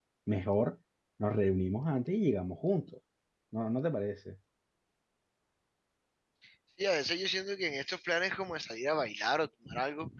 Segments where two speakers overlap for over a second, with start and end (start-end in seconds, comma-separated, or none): none